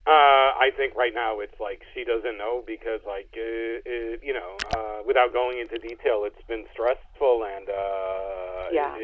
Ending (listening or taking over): listening